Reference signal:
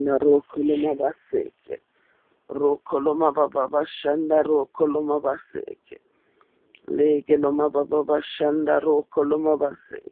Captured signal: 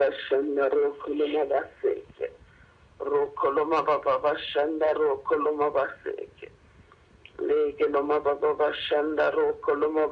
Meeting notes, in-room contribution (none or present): none